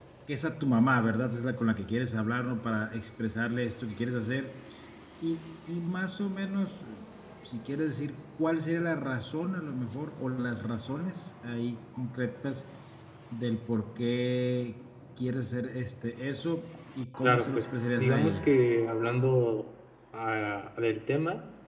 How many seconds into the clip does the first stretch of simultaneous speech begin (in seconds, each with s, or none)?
17.2 s